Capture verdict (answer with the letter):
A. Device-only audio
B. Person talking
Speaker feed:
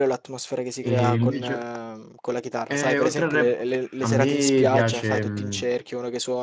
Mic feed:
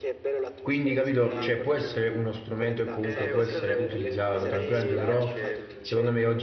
B